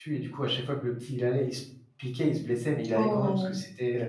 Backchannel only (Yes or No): Yes